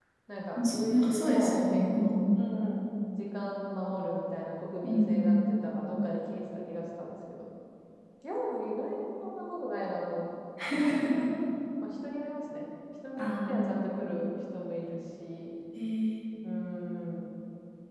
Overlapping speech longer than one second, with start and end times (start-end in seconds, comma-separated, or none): 0.7-2.2